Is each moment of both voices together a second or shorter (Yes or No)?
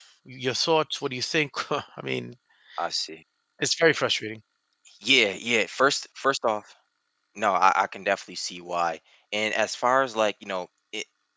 Yes